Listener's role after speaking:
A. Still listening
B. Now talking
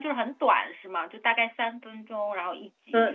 B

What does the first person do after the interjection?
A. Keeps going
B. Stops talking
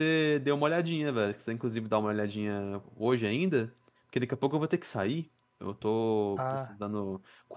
A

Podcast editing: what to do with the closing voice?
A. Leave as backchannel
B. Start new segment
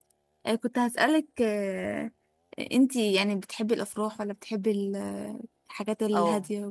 B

